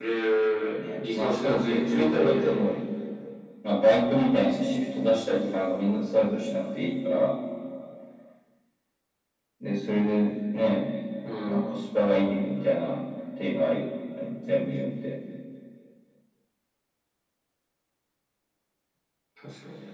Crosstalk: present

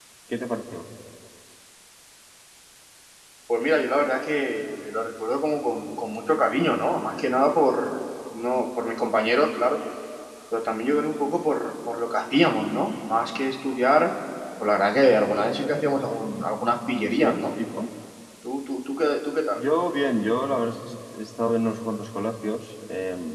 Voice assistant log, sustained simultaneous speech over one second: none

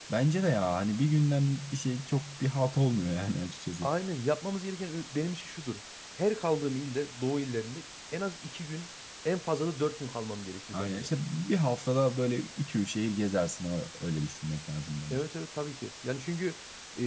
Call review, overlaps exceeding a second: none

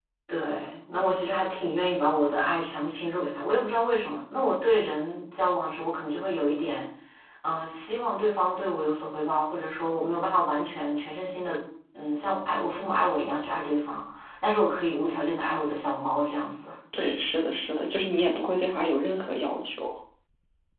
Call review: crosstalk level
none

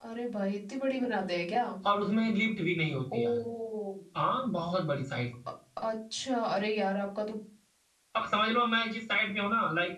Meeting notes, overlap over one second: none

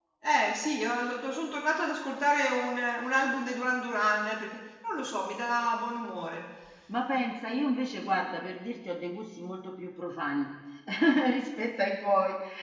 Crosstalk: none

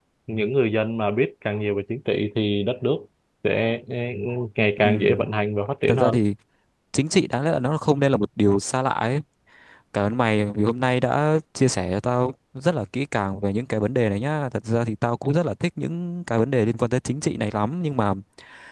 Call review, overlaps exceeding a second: none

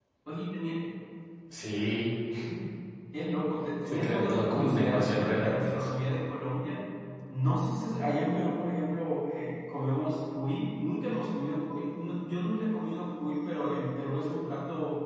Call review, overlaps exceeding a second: present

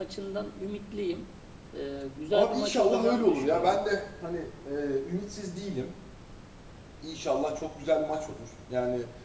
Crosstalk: present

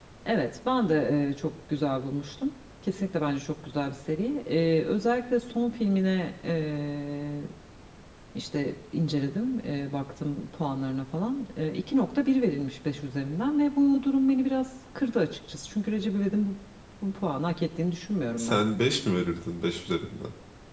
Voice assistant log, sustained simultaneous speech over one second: none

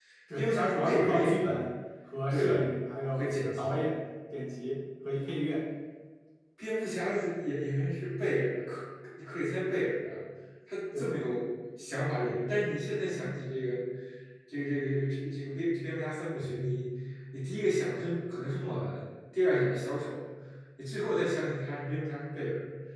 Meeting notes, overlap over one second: present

